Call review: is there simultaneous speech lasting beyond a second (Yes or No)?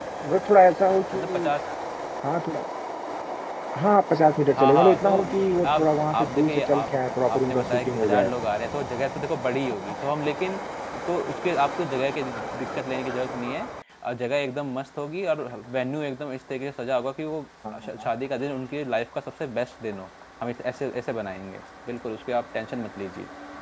Yes